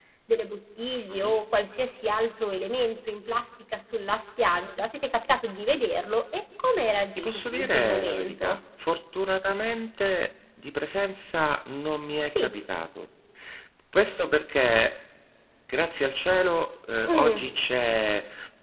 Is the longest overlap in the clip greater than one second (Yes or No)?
Yes